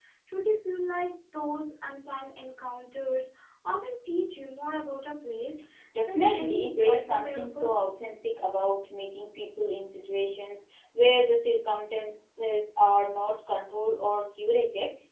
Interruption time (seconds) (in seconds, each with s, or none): 6.1 s